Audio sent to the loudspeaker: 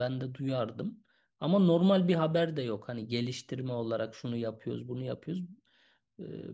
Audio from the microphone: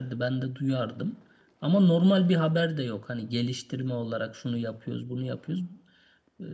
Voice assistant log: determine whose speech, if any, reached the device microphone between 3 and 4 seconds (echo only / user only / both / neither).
echo only